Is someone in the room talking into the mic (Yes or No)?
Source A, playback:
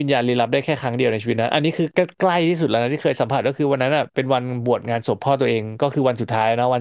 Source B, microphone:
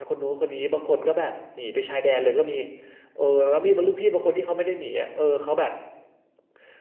Yes